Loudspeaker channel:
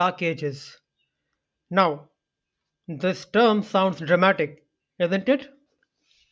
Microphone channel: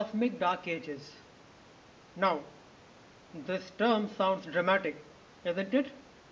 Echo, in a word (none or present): present